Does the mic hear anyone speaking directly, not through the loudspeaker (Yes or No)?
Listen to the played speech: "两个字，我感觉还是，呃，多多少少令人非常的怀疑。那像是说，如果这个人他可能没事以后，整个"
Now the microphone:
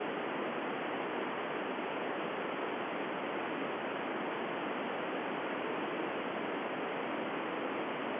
No